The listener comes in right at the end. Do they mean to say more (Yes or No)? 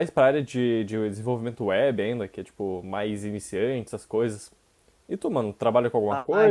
Yes